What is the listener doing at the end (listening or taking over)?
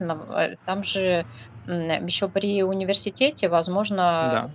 listening